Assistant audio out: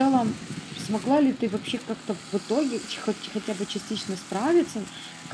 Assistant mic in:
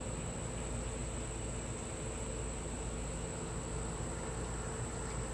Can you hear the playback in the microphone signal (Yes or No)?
No